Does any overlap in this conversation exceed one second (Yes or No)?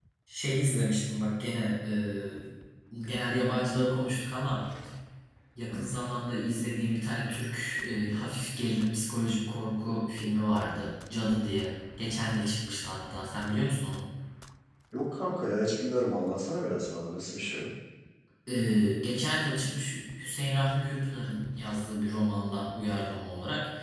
No